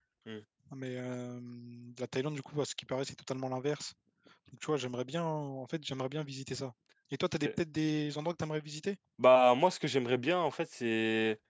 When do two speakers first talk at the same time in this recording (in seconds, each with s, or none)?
none